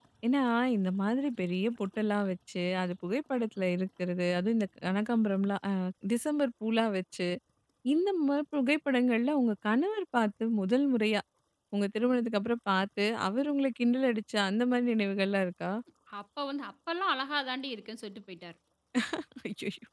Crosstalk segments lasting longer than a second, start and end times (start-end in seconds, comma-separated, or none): none